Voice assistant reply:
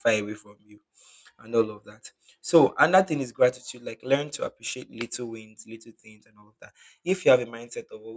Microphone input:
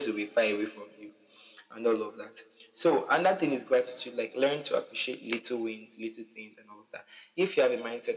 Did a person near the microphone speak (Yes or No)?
No